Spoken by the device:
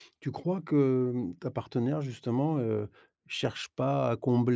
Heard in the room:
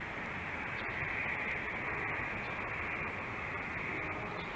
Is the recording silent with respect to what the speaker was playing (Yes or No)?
Yes